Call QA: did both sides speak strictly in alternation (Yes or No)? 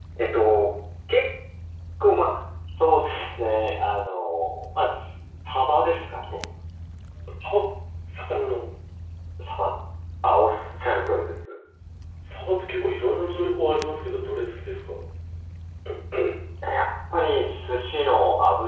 Yes